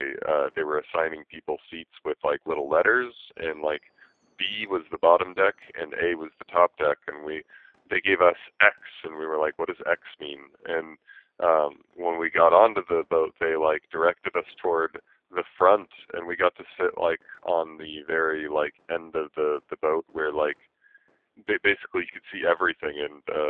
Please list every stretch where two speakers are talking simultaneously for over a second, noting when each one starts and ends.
none

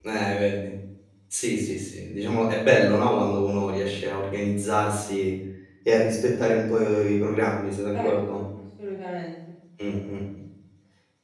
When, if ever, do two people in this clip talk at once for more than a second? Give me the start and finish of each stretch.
none

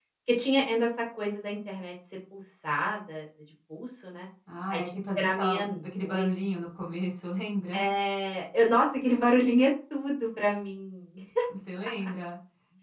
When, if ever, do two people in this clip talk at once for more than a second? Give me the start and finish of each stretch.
4.7-6.3

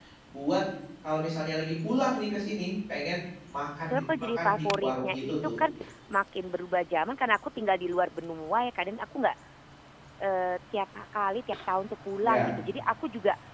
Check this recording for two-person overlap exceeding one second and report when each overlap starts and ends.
3.9-5.6

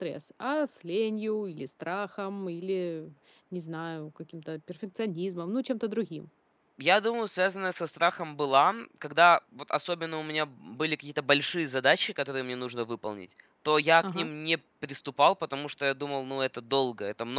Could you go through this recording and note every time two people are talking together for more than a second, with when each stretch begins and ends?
none

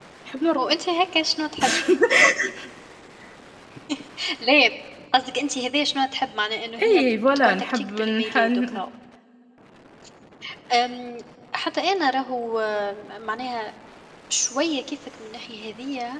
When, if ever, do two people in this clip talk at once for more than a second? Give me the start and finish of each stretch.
6.8-8.8

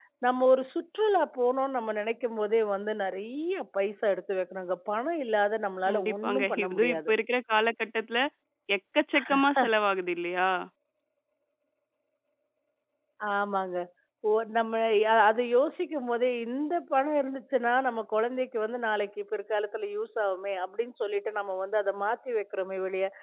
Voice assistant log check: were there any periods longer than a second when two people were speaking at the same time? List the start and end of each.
5.9-7.1

